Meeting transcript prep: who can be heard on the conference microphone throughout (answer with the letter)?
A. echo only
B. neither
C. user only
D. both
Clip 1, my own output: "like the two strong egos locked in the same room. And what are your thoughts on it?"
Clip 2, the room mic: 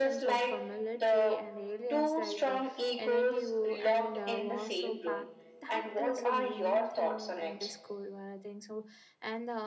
D